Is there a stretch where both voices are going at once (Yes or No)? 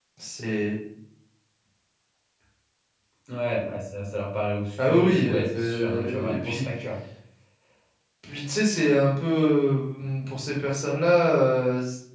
Yes